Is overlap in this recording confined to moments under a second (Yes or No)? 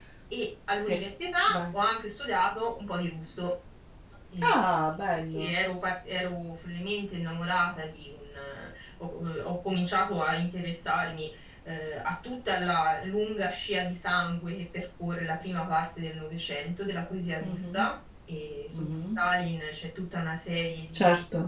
Yes